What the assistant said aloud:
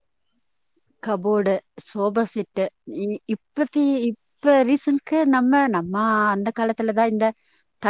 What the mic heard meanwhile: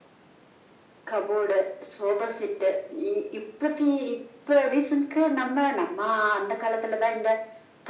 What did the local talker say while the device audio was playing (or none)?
none